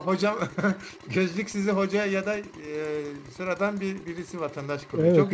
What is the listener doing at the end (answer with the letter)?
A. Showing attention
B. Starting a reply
B